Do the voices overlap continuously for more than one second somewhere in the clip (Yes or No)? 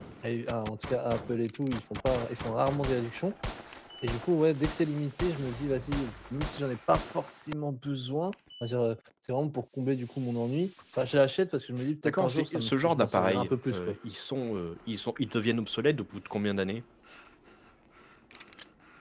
Yes